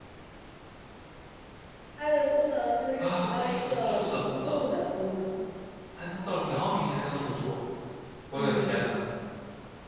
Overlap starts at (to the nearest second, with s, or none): 3 s